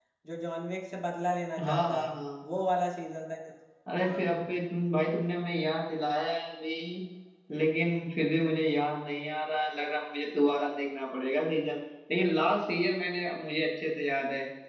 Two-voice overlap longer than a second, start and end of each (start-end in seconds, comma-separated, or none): none